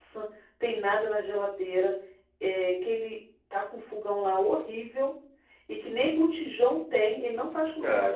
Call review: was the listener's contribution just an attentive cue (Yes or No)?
No